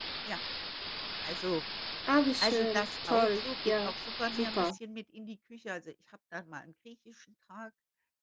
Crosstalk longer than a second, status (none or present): present